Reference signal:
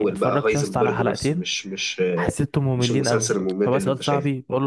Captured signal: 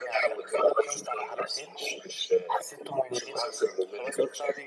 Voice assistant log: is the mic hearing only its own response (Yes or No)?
Yes